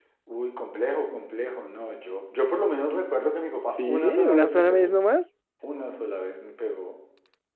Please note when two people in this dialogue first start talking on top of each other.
3.7 s

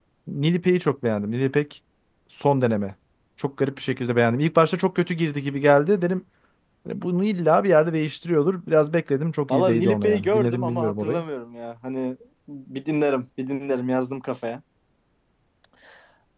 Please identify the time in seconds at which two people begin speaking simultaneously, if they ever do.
9.5 s

